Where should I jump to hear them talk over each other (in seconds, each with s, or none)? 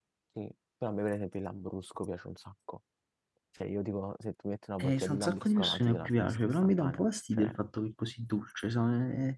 4.8 s